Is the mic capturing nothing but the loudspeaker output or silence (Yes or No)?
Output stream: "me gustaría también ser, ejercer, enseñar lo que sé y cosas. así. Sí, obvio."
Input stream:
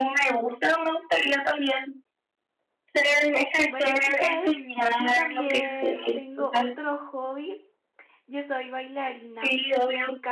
No